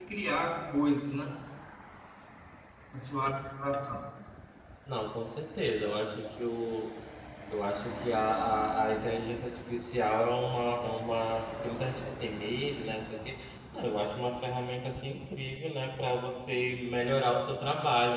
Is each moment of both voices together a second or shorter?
Yes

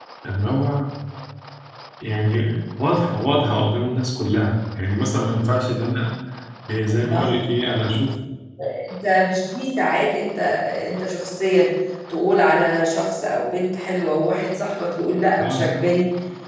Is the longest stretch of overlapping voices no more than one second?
Yes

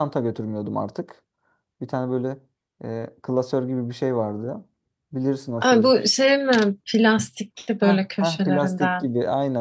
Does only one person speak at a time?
No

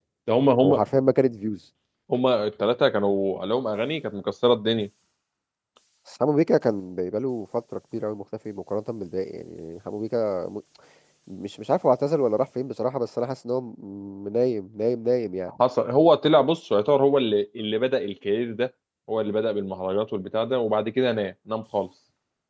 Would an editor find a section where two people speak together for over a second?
No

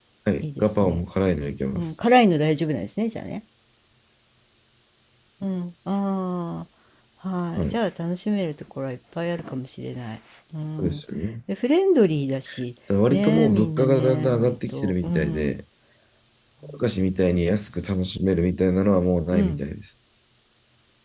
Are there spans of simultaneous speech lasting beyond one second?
Yes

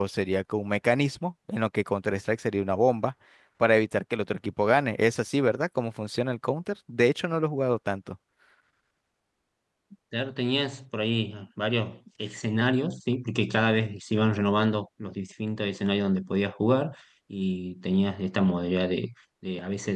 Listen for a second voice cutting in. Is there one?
No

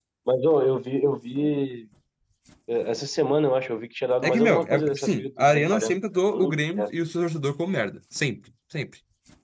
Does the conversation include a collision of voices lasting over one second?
Yes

